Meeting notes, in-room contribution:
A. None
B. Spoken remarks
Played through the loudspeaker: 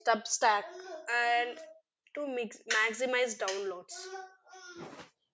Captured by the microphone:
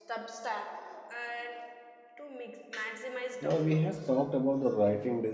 B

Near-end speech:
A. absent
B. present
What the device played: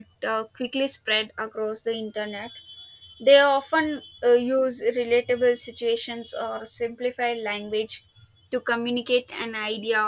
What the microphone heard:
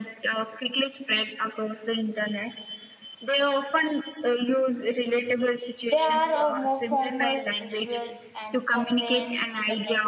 B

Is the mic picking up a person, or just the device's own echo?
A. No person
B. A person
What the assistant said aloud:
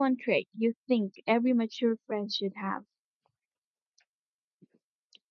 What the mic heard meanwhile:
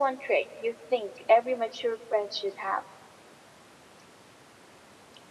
A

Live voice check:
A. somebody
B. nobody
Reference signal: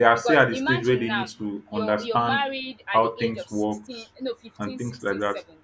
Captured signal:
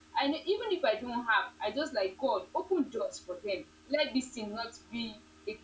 A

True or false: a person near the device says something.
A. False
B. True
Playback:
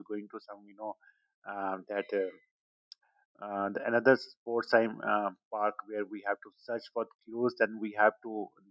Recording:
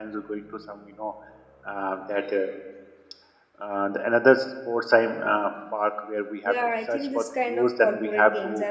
B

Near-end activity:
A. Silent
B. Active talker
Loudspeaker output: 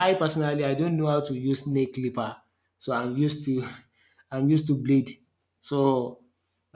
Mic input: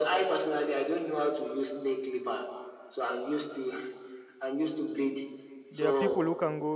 B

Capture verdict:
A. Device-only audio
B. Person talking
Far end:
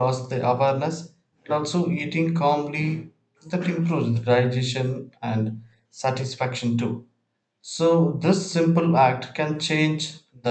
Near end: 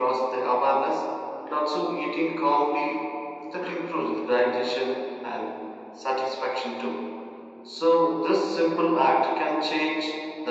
A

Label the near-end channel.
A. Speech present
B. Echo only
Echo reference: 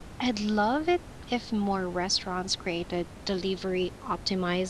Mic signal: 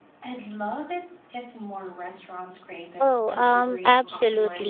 A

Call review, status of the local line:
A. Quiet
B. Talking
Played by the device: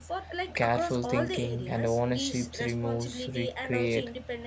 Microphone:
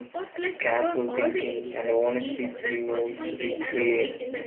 B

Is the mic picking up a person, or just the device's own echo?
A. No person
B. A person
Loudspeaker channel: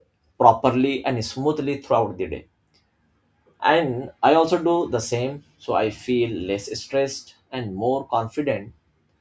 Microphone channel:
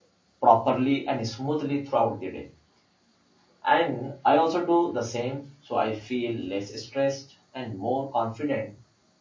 A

